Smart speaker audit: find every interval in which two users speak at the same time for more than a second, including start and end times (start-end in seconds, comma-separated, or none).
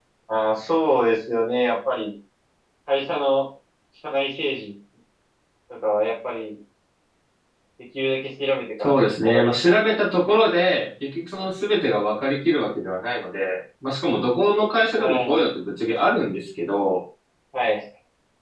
8.8-10.0